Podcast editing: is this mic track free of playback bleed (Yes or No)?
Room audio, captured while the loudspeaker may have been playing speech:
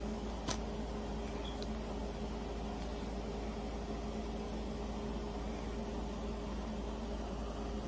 Yes